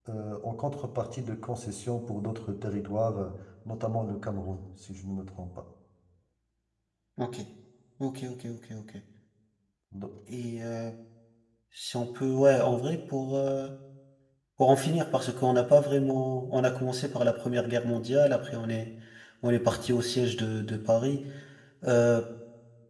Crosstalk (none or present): none